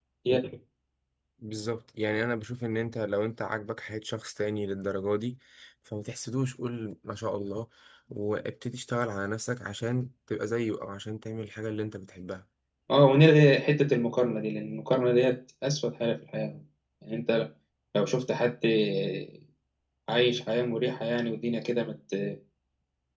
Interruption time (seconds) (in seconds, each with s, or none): none